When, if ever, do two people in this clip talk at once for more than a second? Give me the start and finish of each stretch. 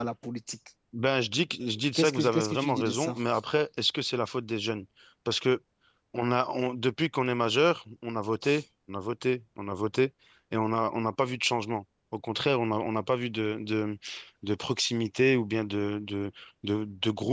1.9-3.1

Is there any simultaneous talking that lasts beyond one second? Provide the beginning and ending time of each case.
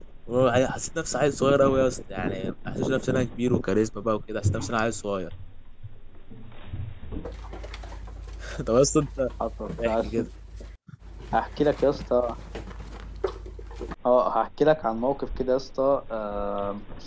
none

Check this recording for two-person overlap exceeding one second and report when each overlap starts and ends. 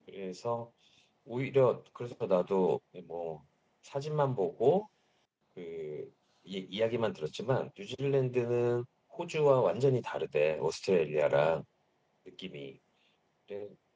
none

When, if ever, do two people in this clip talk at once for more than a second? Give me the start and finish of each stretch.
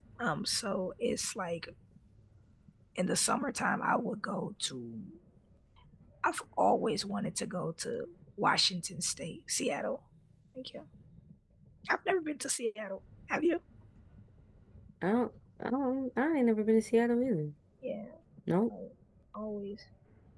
none

